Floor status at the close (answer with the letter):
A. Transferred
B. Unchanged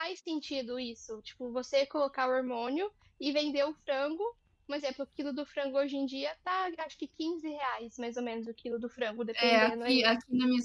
A